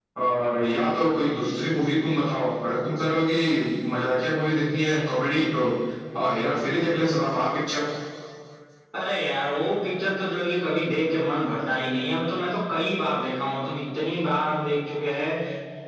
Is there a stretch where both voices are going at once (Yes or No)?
No